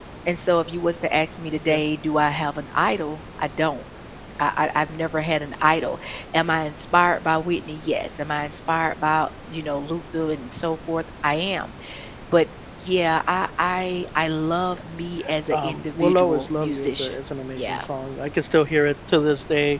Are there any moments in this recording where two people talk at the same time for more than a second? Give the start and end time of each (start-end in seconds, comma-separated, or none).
15.5-17.2